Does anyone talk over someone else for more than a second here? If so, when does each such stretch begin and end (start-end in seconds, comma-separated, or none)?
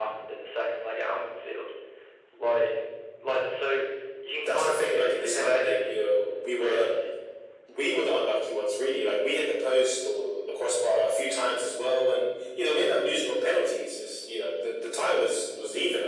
4.5-5.9